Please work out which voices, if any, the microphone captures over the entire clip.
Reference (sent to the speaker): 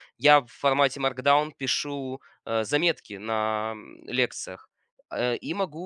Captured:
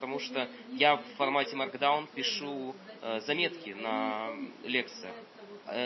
both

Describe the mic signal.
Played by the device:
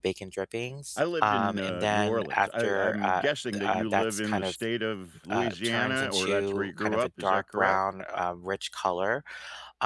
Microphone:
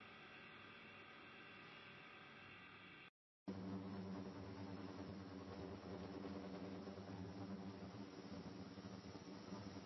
neither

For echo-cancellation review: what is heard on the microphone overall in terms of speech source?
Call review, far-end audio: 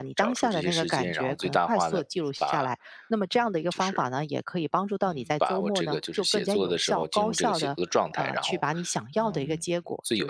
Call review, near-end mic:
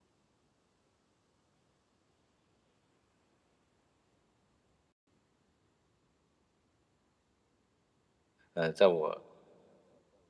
user only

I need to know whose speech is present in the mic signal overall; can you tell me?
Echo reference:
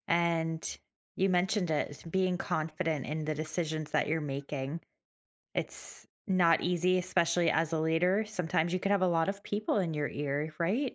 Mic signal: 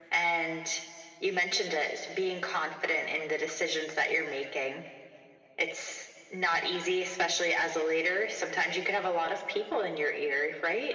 echo only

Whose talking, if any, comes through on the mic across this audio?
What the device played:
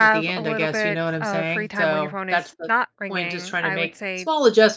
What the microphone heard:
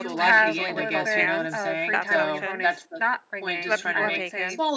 both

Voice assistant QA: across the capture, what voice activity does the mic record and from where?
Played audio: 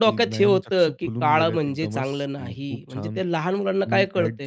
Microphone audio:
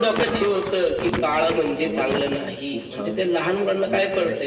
echo only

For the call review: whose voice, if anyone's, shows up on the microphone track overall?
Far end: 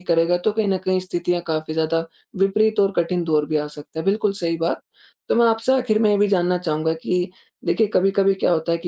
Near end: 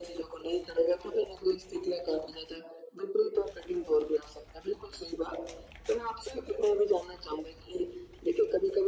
echo only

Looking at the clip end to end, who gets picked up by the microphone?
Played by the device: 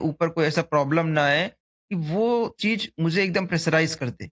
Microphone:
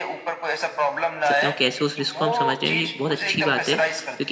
both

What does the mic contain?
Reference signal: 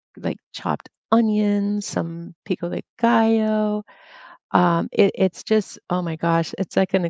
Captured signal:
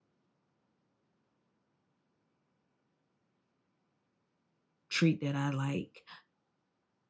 user only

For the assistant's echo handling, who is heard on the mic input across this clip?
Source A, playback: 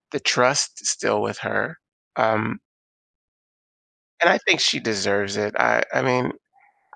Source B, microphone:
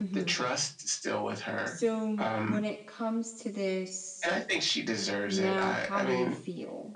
both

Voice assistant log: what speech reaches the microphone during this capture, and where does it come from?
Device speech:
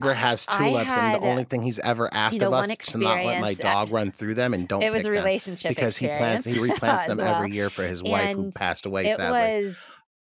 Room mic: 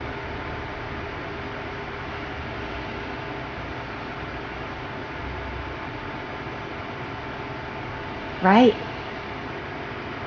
user only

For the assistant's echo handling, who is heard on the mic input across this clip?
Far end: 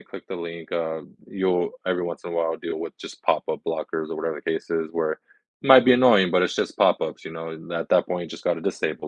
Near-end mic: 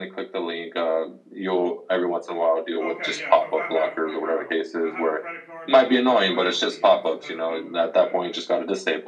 both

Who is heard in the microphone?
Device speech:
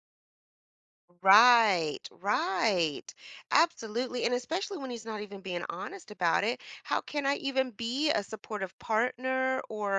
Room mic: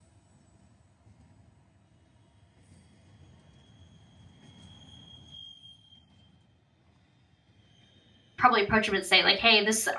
user only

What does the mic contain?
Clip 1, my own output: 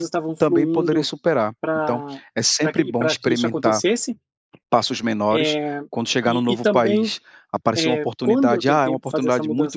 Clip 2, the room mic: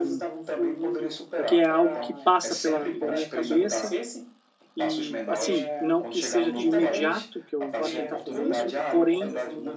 both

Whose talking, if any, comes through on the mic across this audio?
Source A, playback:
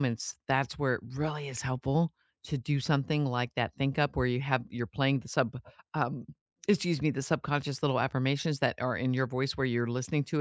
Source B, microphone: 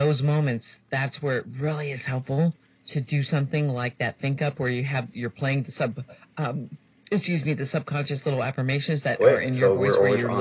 both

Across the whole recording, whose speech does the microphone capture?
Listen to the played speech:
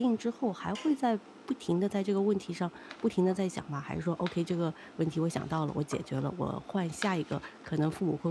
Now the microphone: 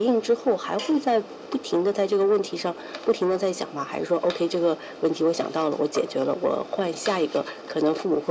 echo only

